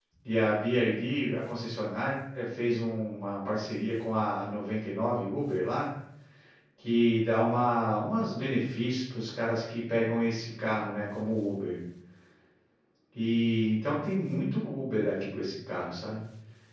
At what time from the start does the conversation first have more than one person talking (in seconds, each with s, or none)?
none